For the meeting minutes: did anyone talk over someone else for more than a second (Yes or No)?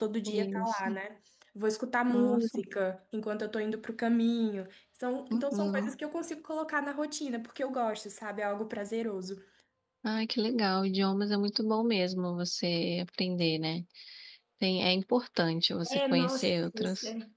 Yes